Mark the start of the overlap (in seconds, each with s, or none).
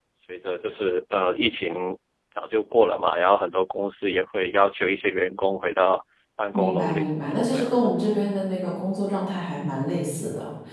6.5 s